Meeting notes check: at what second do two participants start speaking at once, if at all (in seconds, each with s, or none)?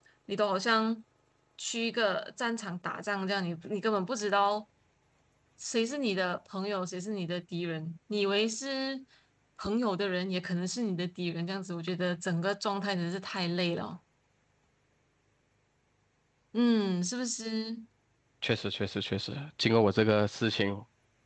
none